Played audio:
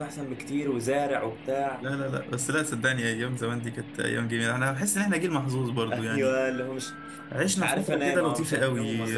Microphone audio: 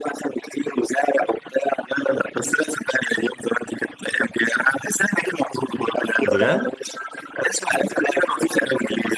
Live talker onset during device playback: 6.2 s

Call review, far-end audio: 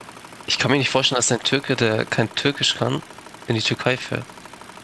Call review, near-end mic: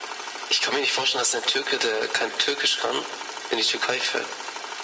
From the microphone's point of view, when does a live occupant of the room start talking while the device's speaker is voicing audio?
none

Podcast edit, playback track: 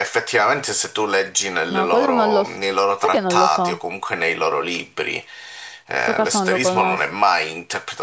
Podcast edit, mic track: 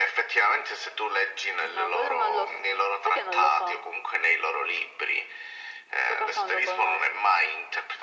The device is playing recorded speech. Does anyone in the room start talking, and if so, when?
none

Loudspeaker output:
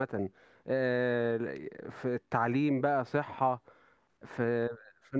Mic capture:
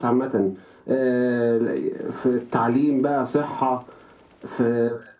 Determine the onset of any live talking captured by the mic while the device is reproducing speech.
none

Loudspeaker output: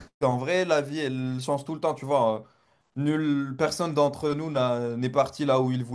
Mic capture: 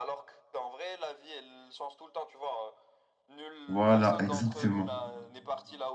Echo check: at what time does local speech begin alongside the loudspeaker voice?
3.7 s

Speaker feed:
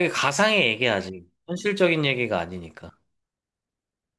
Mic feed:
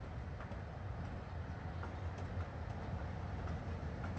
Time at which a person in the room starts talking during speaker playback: none

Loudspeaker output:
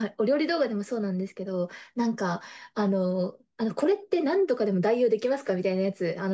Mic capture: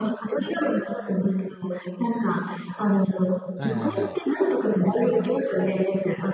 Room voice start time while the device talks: 3.5 s

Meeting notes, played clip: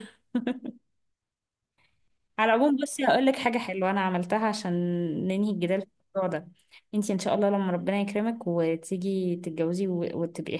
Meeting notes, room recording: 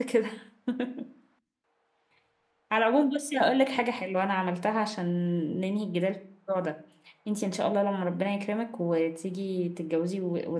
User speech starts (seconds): none

